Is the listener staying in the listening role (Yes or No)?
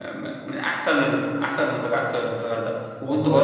Yes